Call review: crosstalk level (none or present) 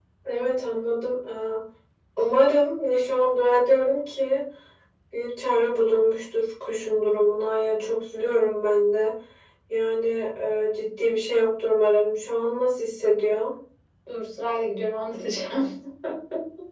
none